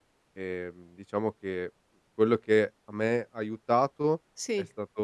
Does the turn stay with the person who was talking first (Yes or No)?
Yes